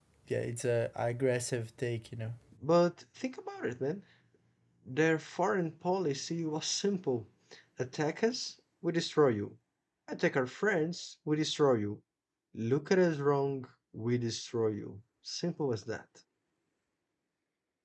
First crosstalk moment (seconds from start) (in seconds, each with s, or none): none